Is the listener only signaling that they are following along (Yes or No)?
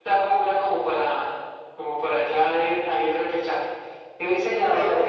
Yes